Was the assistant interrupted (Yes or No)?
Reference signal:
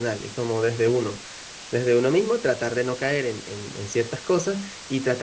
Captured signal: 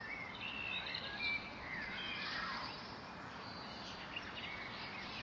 No